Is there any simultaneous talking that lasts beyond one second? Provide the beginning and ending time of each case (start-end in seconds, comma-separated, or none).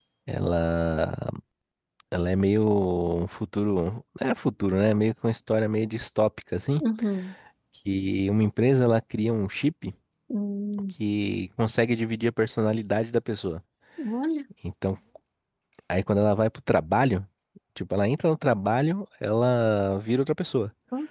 none